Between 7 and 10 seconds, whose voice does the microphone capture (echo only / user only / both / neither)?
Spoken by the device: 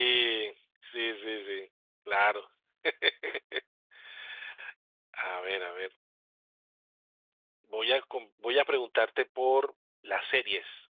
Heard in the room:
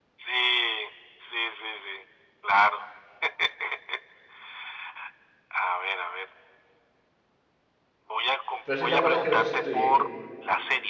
both